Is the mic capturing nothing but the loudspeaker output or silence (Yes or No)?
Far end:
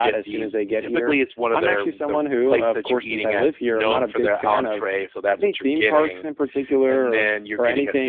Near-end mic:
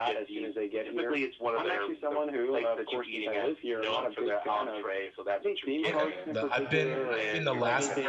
No